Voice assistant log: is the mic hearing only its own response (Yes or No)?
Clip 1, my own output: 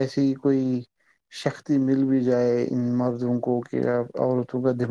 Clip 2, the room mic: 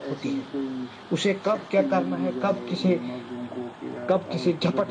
No